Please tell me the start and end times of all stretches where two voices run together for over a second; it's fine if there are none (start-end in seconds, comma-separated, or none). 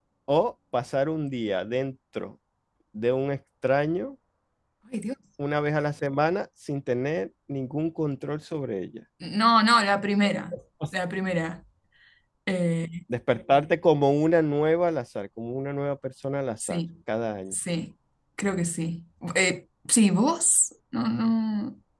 none